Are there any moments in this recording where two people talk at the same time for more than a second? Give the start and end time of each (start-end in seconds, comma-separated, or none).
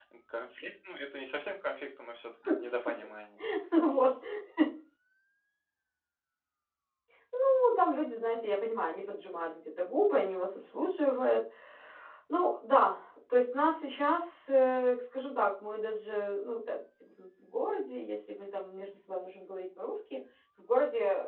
none